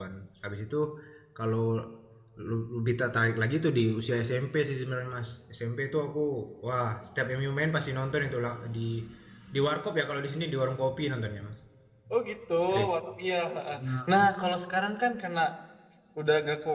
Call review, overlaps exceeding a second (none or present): none